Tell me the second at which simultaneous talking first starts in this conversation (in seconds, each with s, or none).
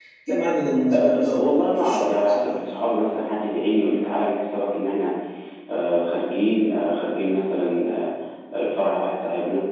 0.9 s